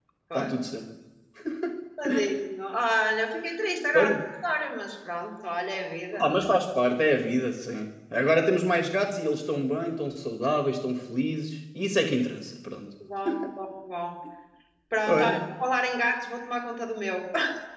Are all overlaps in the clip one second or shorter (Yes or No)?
Yes